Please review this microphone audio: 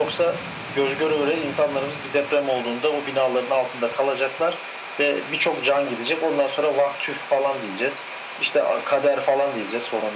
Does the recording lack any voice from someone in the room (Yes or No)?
Yes